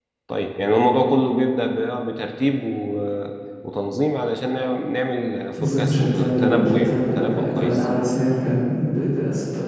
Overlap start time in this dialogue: 6 s

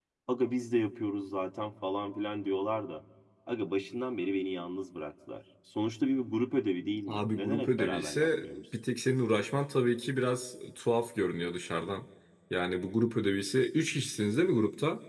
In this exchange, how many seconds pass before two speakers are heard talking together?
7 s

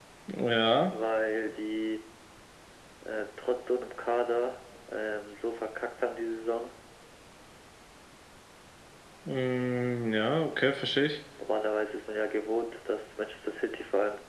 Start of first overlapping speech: none

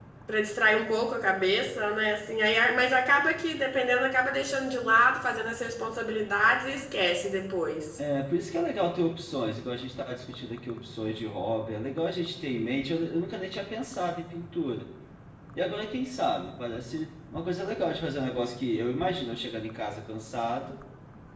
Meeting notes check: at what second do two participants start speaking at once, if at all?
none

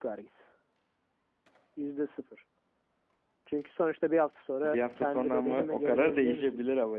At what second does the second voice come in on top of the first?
5 s

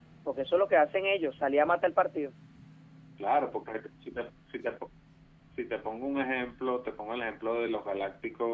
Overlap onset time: none

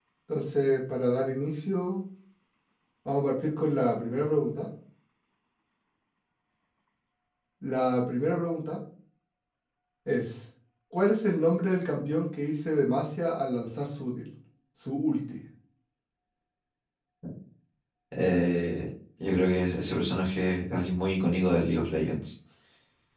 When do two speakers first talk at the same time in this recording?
none

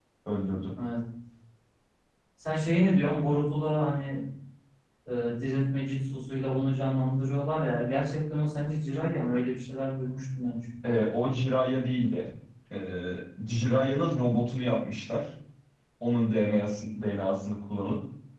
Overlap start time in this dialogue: none

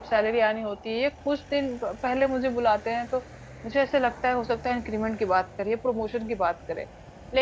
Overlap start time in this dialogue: none

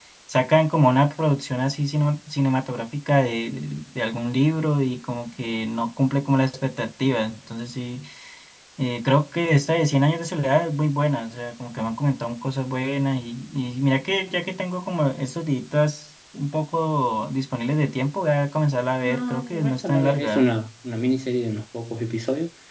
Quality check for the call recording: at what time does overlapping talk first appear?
19 s

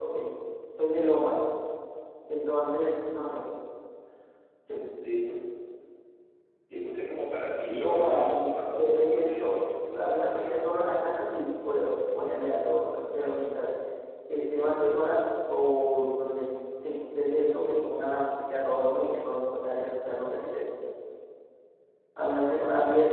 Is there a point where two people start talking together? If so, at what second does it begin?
8 s

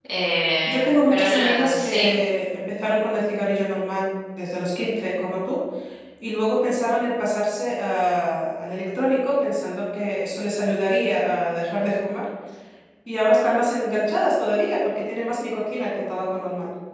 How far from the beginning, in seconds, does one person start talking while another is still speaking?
1 s

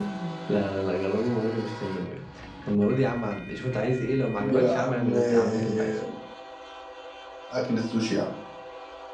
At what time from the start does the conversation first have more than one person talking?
4 s

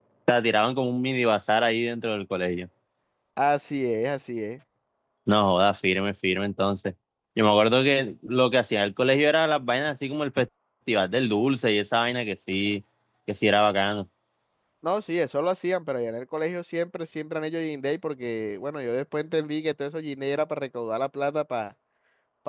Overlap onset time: none

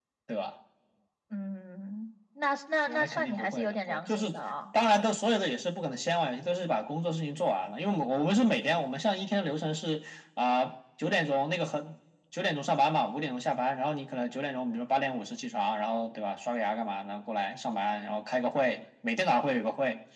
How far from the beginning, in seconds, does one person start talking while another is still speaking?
3 s

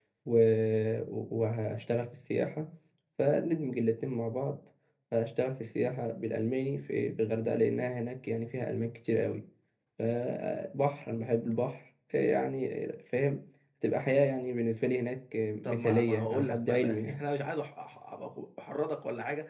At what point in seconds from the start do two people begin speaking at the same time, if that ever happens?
16 s

